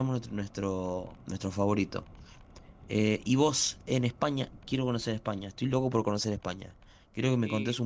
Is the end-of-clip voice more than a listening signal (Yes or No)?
No